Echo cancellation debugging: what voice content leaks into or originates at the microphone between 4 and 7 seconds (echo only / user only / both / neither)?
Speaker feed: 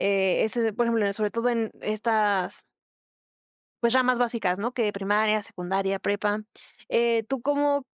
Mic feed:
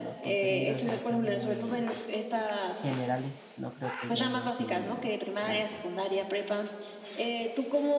both